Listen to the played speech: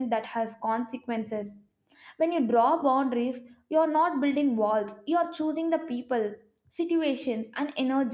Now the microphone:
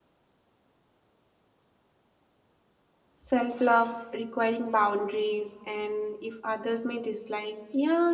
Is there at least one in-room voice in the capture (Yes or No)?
Yes